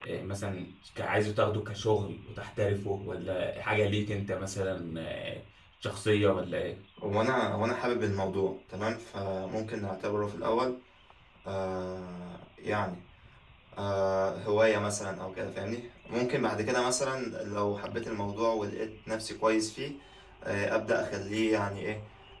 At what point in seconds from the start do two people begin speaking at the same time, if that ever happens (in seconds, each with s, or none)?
none